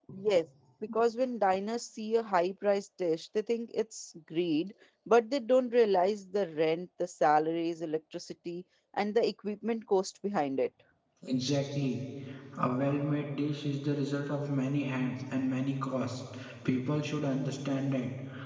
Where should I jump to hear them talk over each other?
none

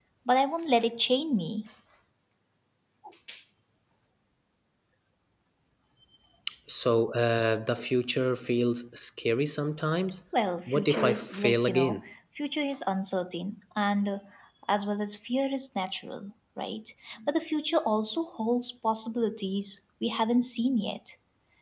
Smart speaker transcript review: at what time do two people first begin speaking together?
10.7 s

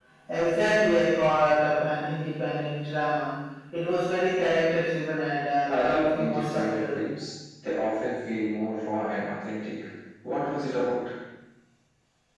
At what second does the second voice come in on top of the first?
5.7 s

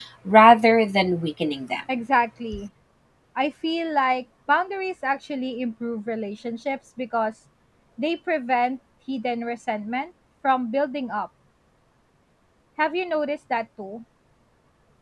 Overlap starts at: none

